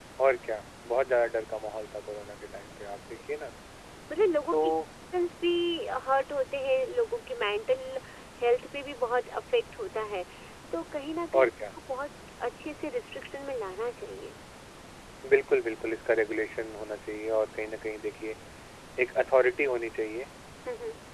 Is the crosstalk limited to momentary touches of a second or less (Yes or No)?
Yes